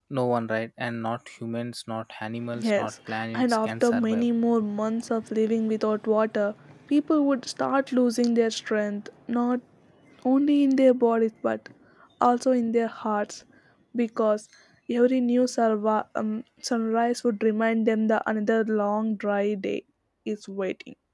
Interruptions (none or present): present